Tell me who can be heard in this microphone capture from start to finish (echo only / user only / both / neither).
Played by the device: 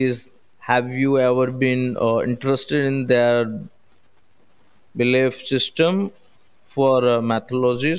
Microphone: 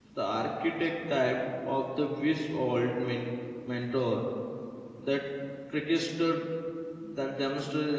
user only